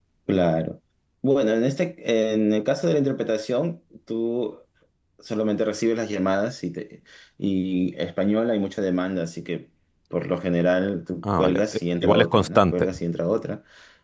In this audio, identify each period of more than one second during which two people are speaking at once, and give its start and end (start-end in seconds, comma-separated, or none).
11.2-12.9